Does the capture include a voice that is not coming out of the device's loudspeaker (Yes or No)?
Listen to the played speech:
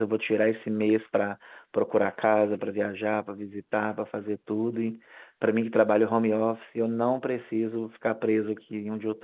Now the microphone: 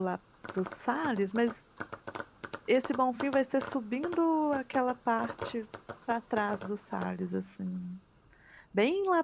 Yes